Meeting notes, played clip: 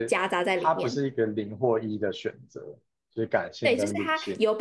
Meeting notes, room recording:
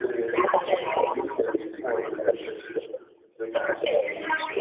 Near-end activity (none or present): none